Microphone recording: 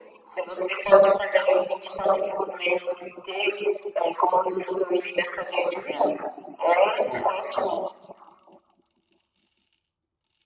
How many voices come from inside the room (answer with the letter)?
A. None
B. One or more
A